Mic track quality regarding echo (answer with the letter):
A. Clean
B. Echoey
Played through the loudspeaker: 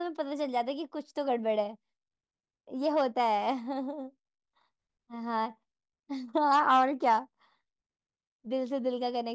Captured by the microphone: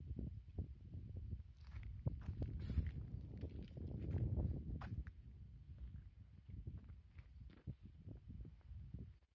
A